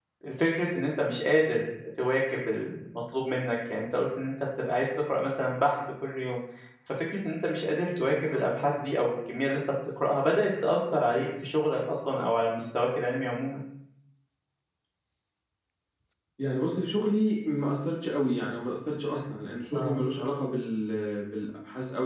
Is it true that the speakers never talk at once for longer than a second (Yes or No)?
Yes